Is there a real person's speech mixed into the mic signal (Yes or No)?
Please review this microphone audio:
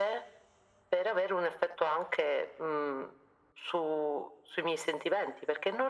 No